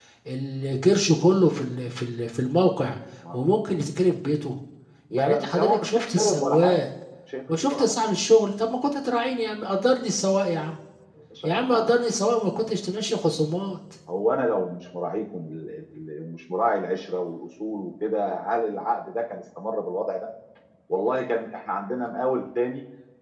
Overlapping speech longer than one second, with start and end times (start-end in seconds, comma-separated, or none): 5.1-6.8